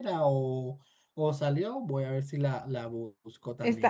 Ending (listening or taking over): taking over